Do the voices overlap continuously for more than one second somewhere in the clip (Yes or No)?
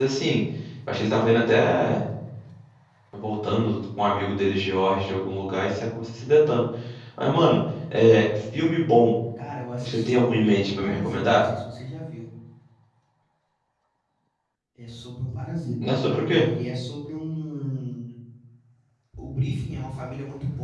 Yes